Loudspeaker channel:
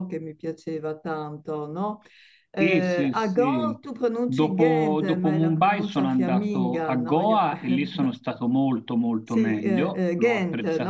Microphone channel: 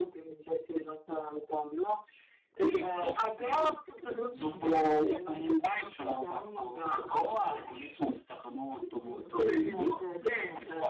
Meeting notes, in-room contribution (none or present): present